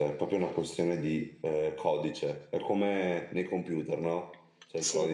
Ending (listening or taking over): listening